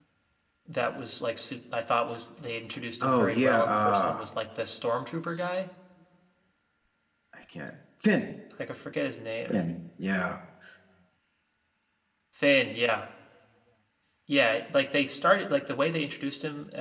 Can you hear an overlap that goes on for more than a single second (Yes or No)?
Yes